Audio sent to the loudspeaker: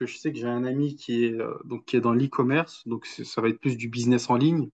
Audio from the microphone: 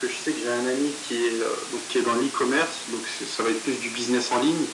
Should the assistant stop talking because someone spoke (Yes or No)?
No